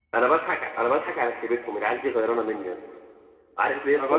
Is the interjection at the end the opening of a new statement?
No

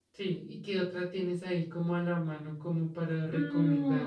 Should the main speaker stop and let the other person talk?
Yes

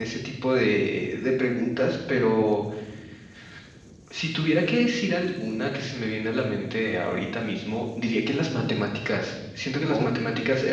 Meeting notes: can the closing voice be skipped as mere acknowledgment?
Yes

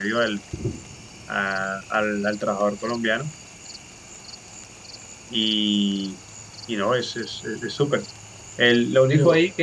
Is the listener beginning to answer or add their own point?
No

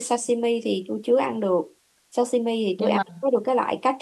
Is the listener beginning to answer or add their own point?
No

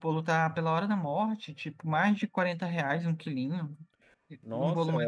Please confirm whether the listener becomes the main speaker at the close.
Yes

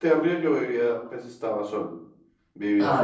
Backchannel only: Yes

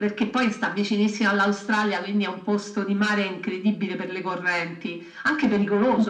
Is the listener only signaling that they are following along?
Yes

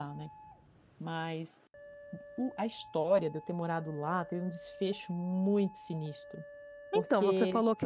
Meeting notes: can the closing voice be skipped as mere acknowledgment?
No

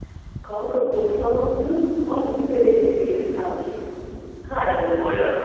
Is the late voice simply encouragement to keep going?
Yes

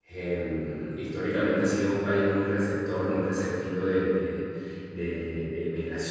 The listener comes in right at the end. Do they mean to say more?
No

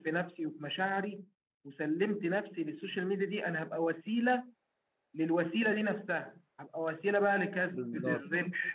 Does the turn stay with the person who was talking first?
Yes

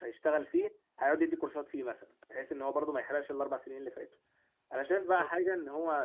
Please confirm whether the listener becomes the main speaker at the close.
No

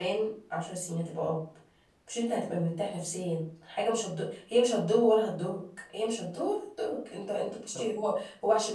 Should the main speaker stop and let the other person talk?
No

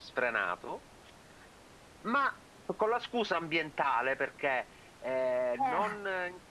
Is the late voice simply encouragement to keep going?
Yes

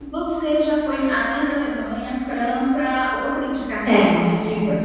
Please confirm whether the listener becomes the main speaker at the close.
No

